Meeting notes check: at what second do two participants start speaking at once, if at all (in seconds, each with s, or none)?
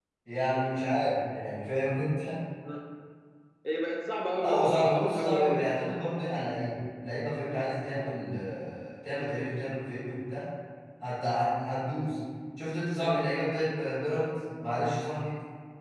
4.4 s